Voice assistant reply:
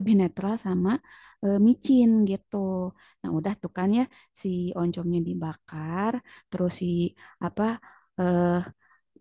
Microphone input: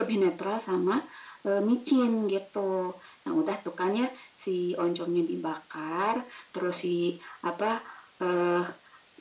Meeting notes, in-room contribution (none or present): none